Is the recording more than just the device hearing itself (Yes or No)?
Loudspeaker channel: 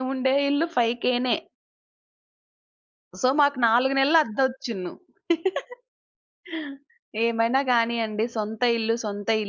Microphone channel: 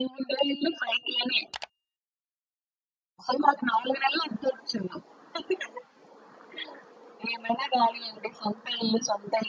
No